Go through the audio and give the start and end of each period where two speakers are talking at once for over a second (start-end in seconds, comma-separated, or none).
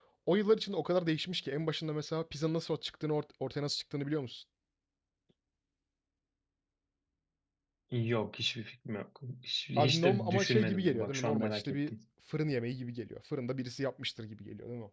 9.8-11.9